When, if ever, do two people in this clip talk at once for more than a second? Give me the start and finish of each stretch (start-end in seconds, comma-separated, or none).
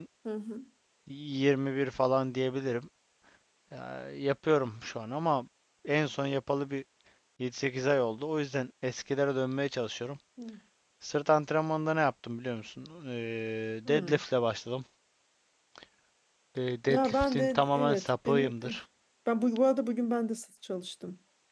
16.9-18.8